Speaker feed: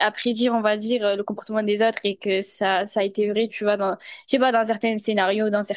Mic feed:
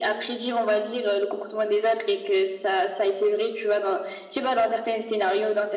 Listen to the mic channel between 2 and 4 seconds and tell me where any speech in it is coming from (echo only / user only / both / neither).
echo only